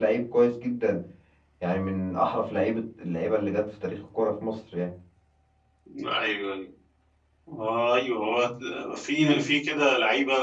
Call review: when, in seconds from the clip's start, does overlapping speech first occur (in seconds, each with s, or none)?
none